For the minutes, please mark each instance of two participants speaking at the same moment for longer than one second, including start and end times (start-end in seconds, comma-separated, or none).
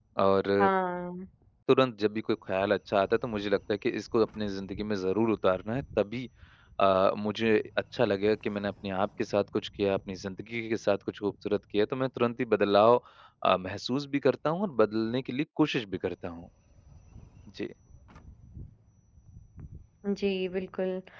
none